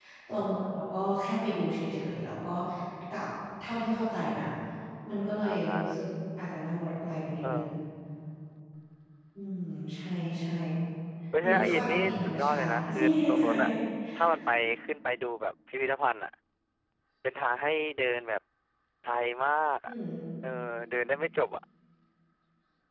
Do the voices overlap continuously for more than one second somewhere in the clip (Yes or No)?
Yes